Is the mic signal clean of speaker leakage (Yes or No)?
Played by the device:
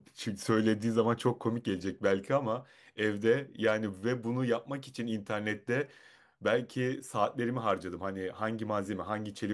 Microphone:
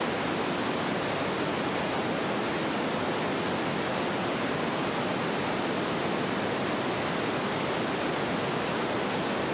Yes